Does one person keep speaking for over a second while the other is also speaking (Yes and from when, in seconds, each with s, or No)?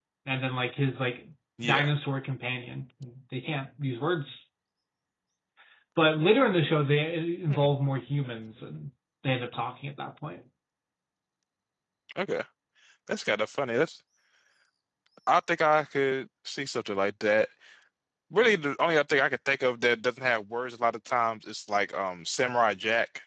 No